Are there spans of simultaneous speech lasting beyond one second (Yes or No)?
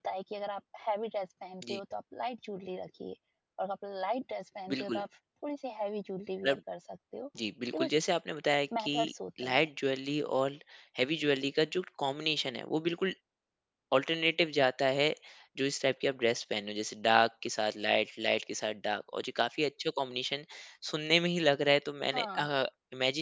No